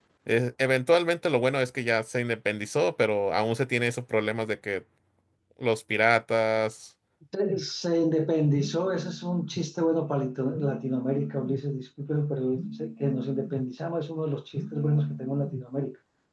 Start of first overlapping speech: none

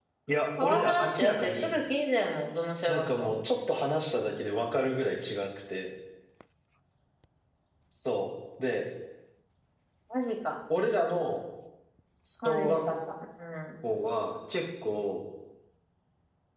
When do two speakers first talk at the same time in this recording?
0.6 s

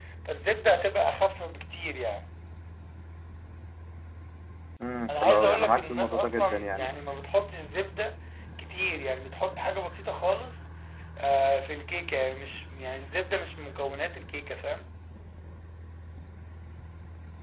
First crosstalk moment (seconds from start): 5.1 s

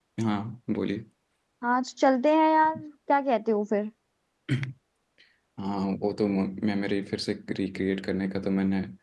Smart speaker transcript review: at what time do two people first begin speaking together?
none

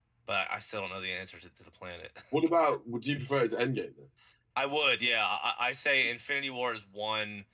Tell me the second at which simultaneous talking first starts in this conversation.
none

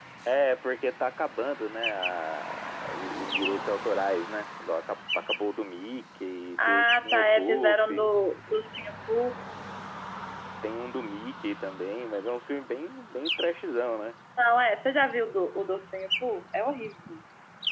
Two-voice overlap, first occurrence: 6.6 s

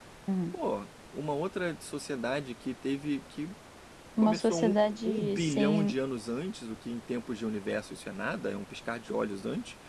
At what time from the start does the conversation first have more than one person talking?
4.2 s

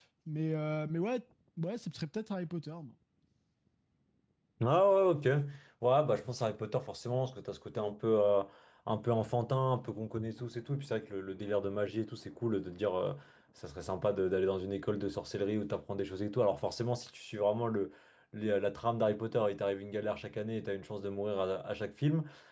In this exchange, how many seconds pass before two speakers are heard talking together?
none

